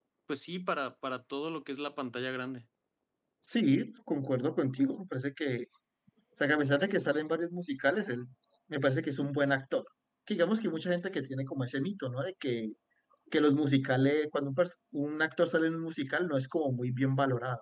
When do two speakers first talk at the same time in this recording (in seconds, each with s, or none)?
none